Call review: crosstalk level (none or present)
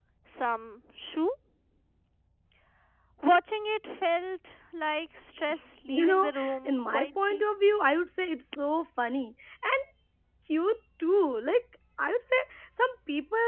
present